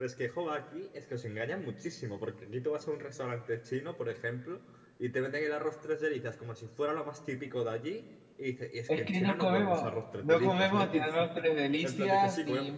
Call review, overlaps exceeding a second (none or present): present